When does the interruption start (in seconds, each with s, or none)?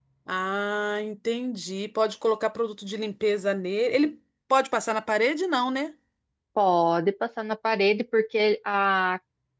none